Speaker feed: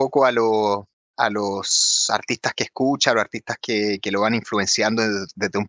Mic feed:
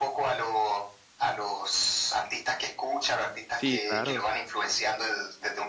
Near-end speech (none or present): present